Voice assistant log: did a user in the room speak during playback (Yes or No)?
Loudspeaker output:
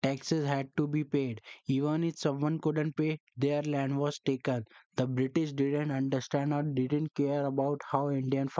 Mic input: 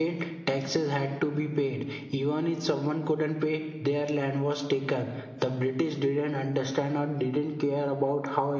No